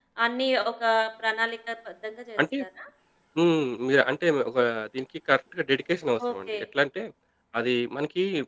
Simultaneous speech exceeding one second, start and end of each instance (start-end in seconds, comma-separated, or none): none